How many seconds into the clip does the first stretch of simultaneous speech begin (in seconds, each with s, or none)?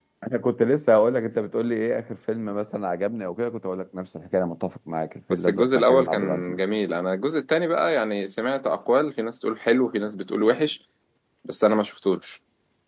5.3 s